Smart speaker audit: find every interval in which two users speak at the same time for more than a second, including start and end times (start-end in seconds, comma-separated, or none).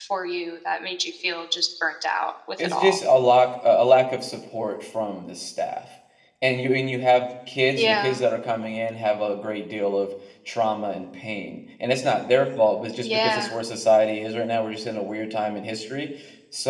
none